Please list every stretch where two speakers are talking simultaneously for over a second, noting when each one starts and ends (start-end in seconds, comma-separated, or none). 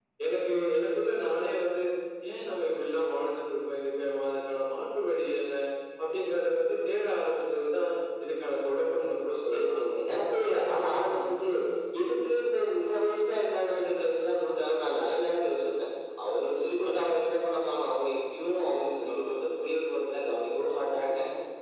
none